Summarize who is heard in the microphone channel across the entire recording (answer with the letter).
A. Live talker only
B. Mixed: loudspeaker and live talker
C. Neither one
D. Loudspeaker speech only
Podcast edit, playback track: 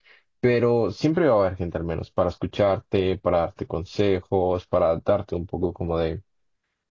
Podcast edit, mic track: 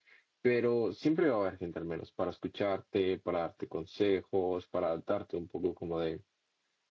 D